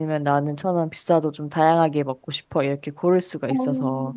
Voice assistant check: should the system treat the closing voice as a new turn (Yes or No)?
Yes